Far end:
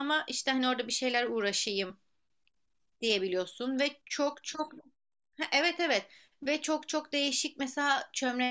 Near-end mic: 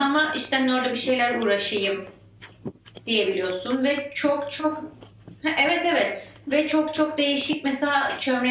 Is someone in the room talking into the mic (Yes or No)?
No